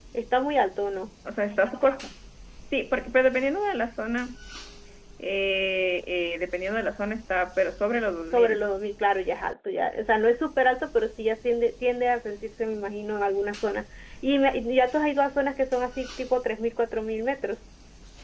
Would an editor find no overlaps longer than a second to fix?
Yes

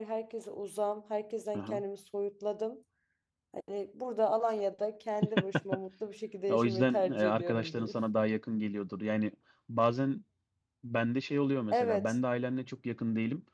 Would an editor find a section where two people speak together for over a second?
Yes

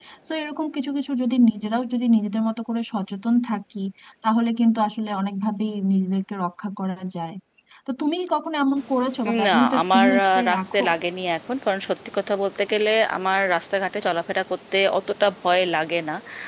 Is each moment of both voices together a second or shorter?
No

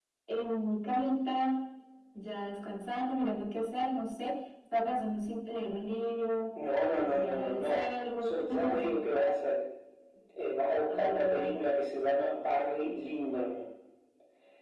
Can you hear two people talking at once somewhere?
Yes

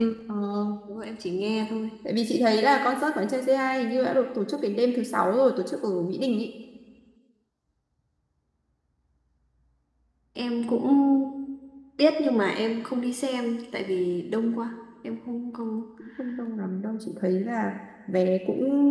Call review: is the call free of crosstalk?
Yes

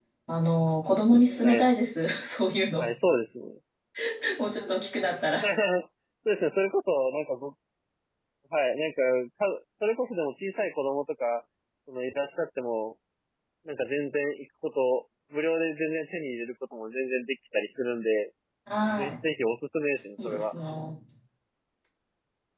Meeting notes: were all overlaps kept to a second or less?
Yes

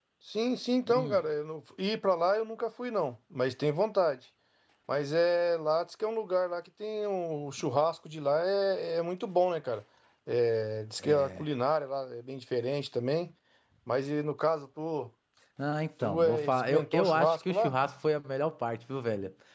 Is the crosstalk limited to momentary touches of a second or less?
No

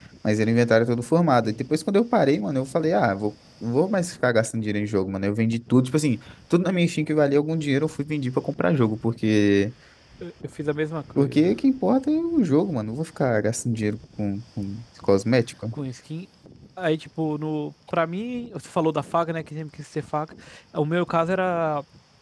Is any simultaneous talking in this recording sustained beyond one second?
No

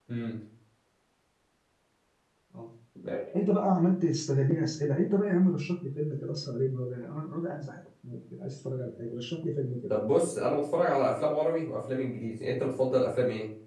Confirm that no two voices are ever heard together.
Yes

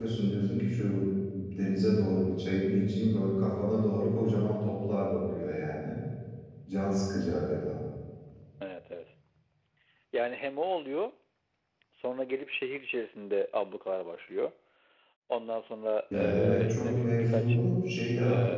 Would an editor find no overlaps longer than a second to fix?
No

